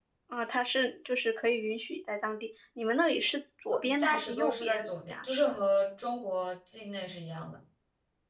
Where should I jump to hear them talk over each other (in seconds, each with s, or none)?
3.7 s